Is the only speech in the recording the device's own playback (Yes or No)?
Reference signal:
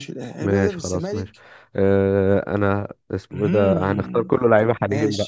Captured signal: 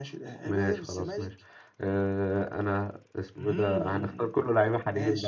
Yes